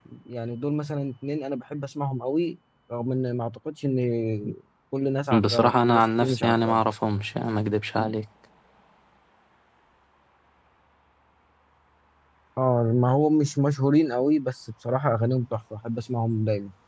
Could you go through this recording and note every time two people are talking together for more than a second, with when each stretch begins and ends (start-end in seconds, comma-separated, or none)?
5.4-6.8